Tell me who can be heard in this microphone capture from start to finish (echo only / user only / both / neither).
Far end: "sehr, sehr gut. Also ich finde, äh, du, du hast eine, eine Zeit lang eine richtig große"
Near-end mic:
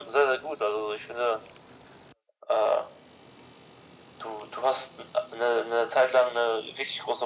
echo only